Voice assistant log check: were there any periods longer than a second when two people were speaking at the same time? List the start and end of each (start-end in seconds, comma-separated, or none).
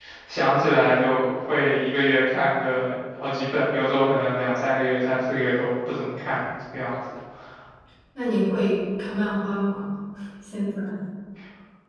none